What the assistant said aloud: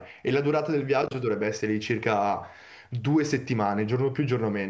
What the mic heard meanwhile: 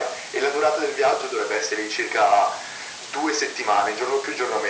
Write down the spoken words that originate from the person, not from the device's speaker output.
none

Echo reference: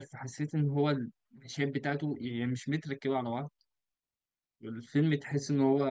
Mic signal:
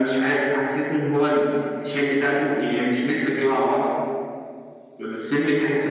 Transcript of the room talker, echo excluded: none

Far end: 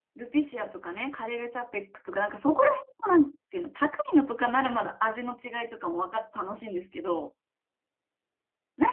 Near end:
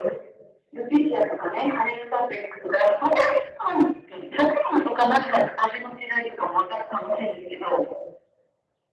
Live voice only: none

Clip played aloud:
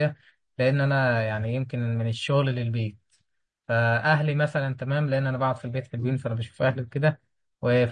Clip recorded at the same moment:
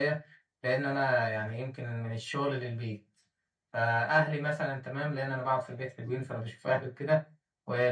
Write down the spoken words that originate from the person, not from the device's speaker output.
none

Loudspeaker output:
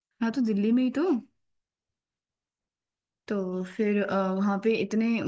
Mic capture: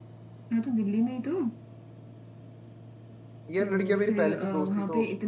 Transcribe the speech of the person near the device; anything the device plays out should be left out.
ये लड़कियां मेरी पहले से दोस्त थी तो

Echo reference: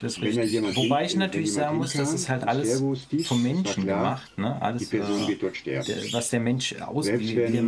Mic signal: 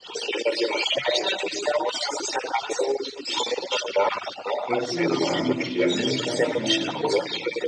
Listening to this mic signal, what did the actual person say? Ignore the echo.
trotzdem bekamen die Sterbenden keine Schmerzmittel.

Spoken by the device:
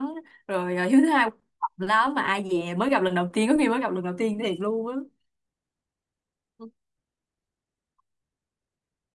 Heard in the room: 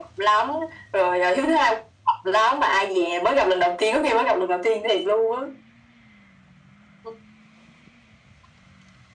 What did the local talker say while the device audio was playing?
none

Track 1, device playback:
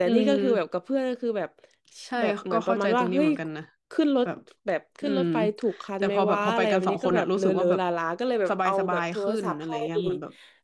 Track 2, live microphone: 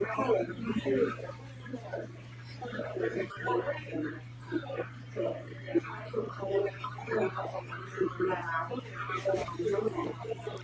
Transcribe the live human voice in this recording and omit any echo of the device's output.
none

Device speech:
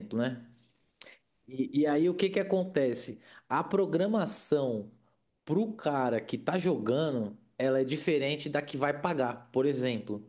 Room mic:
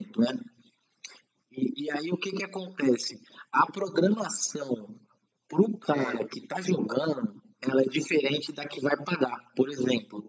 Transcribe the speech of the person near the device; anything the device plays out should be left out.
É,

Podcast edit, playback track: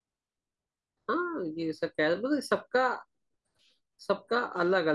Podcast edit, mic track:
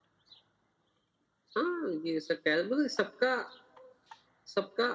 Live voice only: none

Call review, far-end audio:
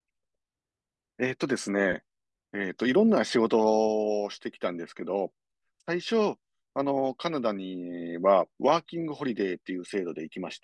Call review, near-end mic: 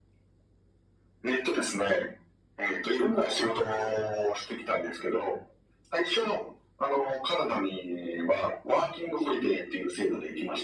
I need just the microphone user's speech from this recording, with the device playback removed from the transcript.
none

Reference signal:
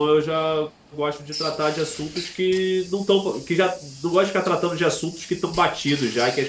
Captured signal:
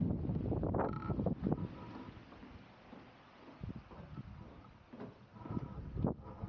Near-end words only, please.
none

